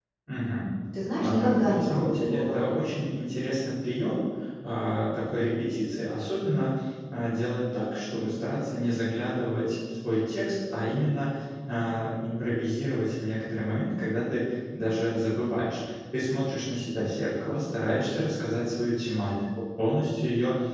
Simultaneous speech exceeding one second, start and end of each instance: 1.2-2.6

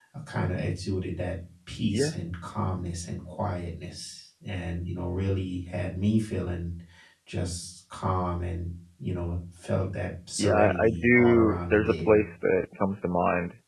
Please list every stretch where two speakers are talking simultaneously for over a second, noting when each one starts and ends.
10.4-12.2

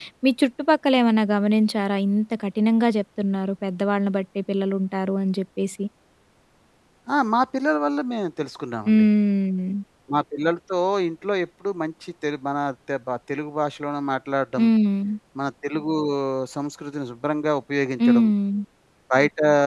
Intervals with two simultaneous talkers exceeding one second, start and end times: none

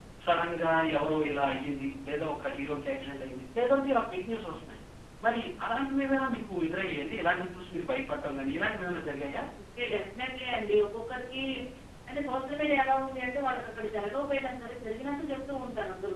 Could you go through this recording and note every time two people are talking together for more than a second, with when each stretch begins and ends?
none

